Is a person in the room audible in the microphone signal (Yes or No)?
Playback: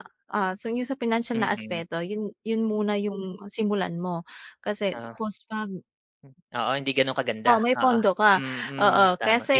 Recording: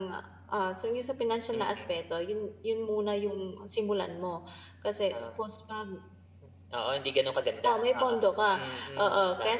No